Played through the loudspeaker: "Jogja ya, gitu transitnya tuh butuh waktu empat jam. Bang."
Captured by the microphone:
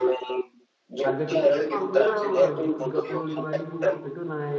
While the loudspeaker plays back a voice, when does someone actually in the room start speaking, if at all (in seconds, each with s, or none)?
1.0 s